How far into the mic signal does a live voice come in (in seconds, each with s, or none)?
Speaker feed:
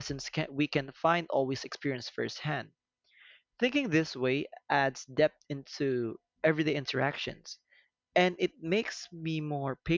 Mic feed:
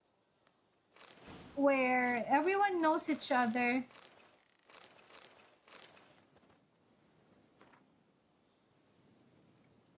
1.6 s